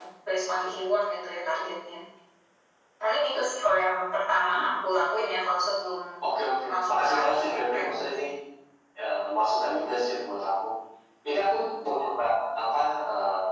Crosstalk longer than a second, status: present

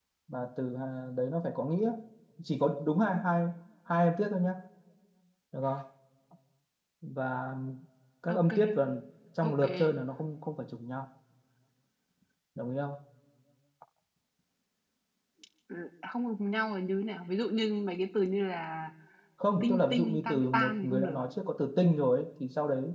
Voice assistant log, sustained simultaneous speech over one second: present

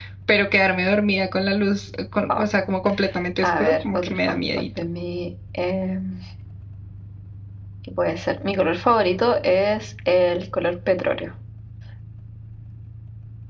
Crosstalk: present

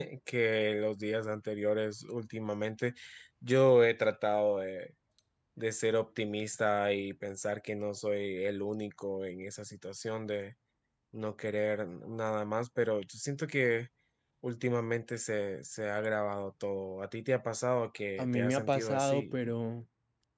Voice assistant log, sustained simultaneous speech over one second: present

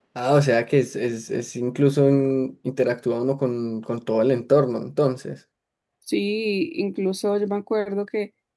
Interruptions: none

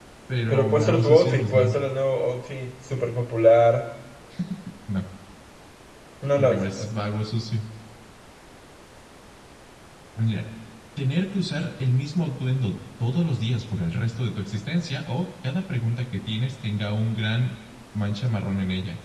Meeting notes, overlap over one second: present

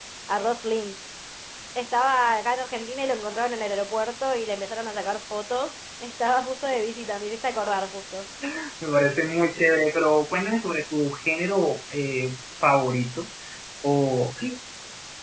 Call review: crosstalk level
none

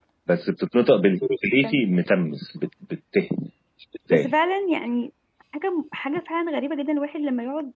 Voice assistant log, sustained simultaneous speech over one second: none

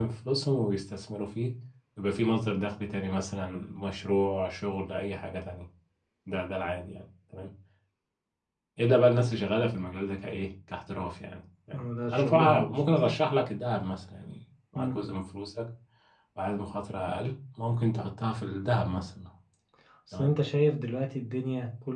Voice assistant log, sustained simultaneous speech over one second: present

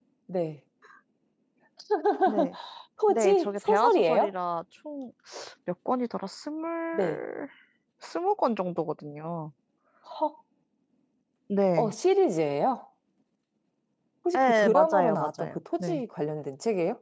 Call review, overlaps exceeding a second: present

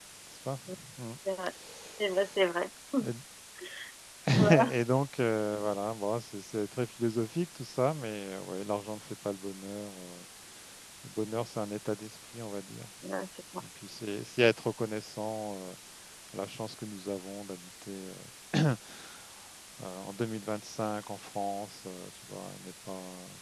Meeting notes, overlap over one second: none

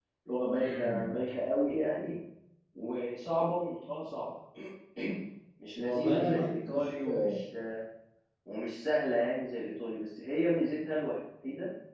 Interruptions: present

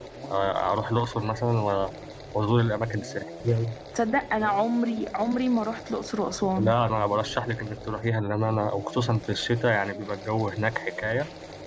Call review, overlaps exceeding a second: none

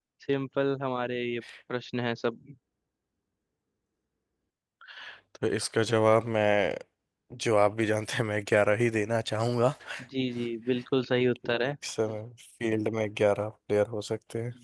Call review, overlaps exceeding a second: none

